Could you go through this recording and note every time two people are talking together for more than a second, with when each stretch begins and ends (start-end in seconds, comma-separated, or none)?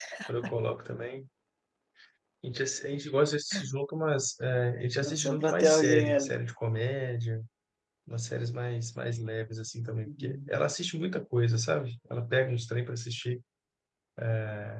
5.0-6.3